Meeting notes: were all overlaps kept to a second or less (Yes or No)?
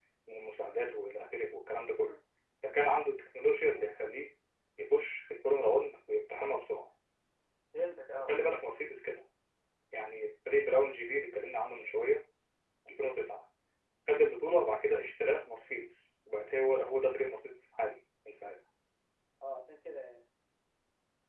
Yes